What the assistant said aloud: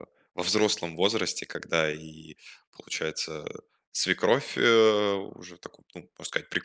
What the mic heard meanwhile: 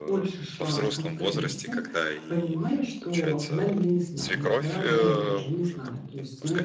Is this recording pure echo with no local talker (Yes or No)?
No